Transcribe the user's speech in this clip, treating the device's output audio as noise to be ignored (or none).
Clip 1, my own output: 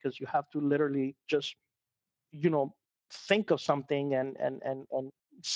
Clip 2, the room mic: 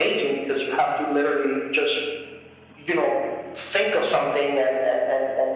none